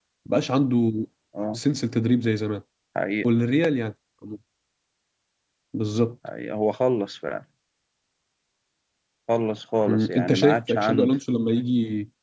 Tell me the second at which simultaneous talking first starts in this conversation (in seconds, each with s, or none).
9.9 s